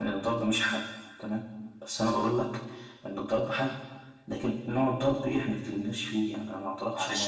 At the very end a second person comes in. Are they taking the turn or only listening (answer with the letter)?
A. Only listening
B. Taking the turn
B